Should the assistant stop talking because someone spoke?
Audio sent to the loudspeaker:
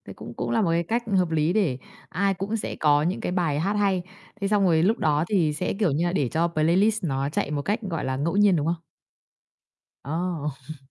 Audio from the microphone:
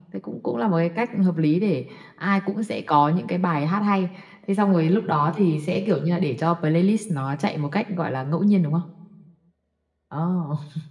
No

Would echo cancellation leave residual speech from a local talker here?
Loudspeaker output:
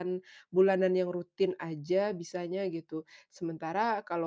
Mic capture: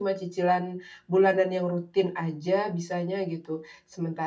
No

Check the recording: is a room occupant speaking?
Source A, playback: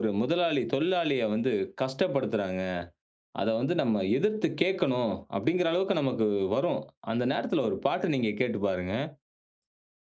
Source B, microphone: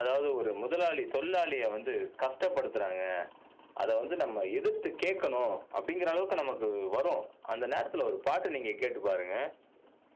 No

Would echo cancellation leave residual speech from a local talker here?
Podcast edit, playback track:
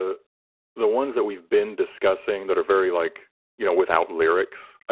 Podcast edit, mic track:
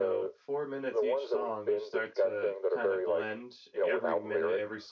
Yes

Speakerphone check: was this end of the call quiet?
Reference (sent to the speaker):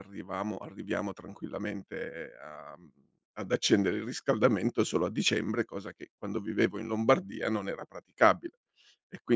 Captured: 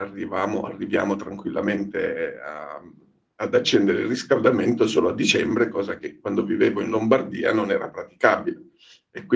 Yes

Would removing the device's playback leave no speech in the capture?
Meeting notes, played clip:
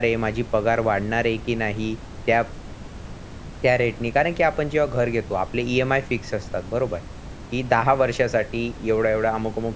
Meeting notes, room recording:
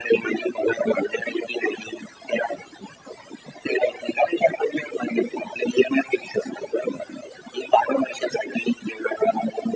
Yes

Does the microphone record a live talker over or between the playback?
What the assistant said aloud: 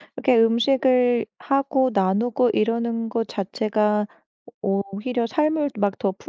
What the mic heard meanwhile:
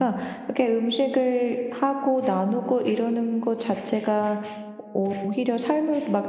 No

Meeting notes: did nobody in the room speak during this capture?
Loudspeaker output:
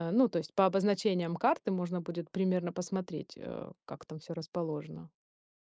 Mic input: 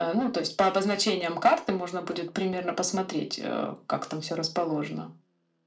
Yes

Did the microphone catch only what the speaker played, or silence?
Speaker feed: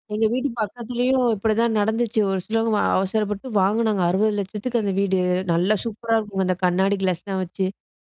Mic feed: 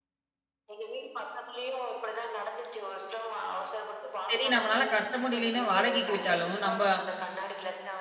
No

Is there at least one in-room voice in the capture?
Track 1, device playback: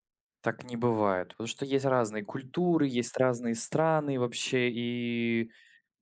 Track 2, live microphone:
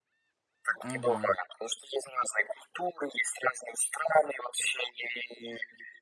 Yes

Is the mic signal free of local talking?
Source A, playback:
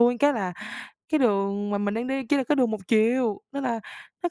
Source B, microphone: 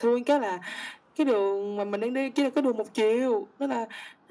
Yes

